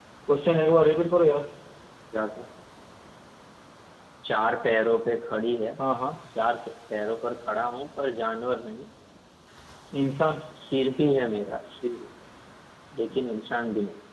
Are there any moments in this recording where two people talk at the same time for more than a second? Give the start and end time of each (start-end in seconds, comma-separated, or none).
none